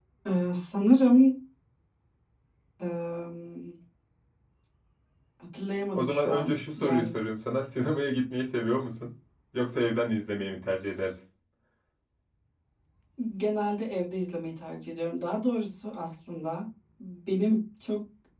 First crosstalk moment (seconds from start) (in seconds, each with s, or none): 5.9 s